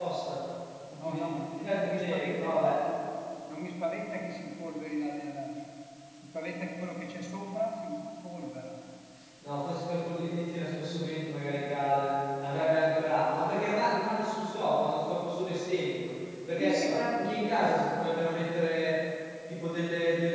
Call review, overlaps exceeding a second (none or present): present